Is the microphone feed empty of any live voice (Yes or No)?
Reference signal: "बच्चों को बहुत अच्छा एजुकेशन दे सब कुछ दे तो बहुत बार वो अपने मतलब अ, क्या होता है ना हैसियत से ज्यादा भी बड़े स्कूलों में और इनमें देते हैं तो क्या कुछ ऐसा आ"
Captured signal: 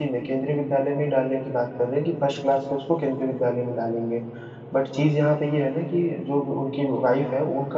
No